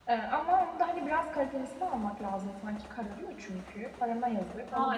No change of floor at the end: No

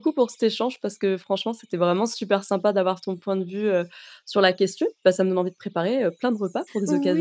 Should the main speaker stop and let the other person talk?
Yes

